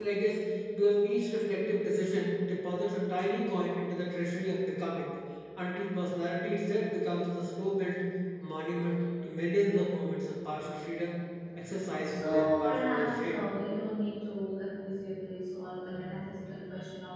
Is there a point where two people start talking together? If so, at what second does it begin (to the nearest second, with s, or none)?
12 s